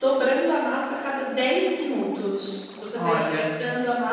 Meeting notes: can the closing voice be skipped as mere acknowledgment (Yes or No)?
Yes